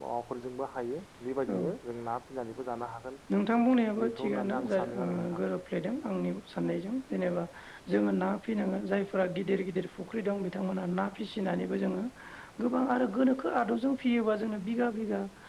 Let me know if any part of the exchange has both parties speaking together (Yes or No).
Yes